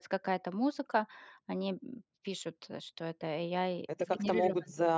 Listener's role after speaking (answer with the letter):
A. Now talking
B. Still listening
A